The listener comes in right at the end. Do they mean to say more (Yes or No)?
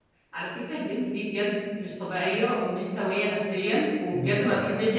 No